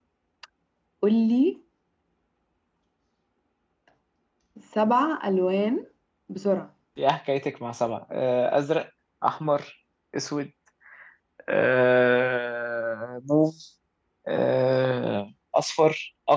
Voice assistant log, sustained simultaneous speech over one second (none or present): none